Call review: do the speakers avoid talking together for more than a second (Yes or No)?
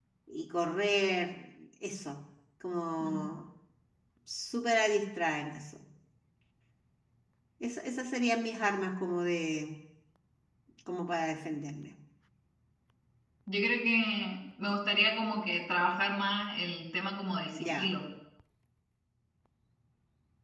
Yes